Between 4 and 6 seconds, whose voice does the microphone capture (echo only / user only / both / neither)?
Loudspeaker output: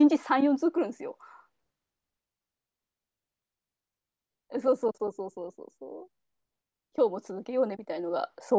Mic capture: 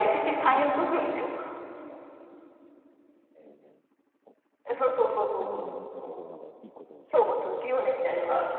both